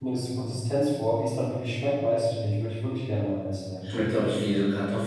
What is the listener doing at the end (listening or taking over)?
taking over